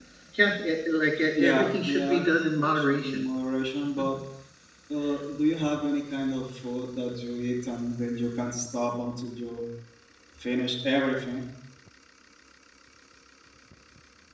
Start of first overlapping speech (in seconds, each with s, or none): 1.4 s